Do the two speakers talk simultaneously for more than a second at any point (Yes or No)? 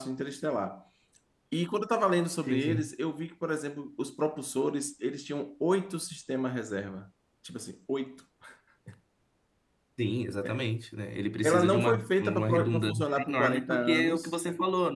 Yes